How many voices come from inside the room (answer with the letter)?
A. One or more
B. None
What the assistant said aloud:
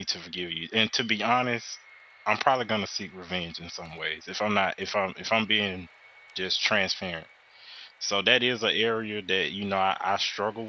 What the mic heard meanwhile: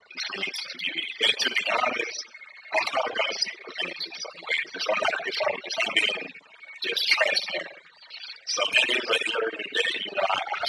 B